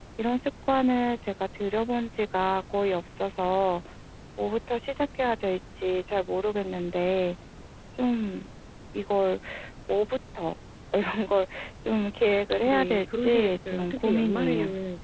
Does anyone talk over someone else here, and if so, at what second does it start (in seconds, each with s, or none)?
12.7 s